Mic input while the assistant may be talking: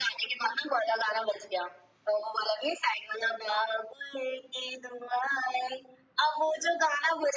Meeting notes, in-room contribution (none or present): none